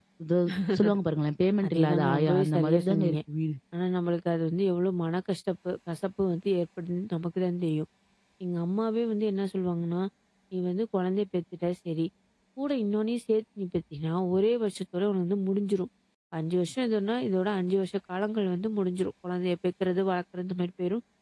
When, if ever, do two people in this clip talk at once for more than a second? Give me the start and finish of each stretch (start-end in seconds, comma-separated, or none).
1.6-3.2